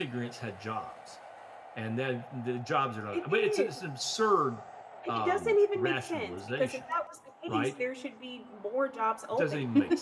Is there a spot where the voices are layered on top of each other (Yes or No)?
Yes